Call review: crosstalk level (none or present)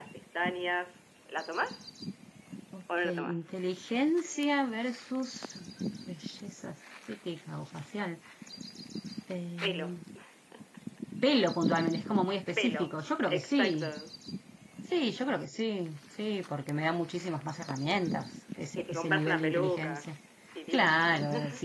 present